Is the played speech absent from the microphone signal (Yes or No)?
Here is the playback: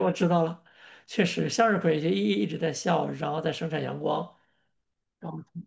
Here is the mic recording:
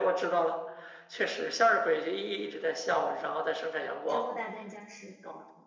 No